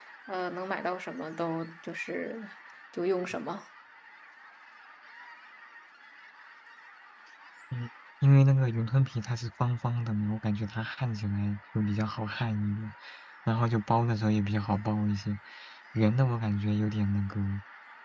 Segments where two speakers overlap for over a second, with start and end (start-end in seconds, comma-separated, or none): none